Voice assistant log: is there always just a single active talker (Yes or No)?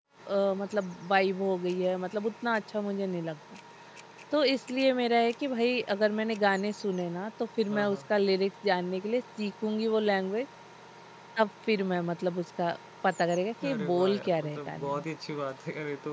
No